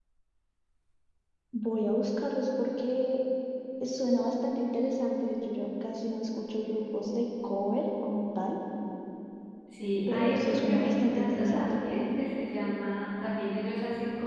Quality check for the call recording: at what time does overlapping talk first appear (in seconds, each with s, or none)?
10.1 s